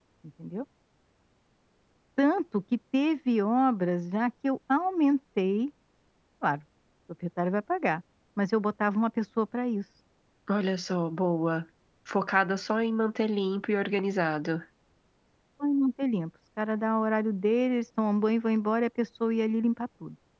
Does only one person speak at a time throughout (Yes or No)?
Yes